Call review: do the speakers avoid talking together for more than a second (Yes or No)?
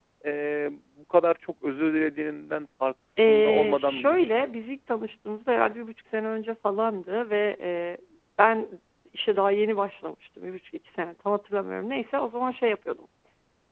No